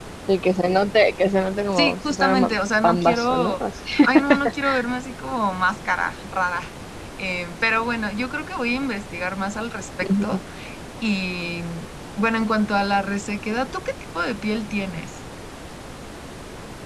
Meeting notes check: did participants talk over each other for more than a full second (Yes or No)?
Yes